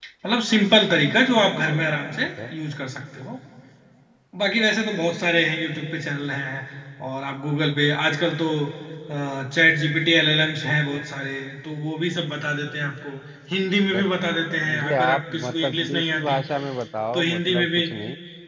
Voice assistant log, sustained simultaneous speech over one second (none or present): present